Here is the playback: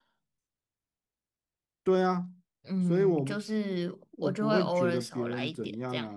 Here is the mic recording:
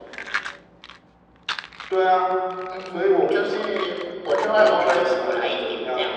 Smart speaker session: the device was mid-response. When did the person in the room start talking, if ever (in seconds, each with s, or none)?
none